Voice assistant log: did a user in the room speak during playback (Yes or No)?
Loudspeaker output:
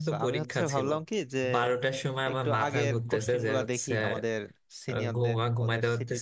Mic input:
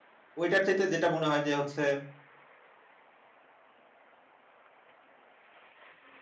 Yes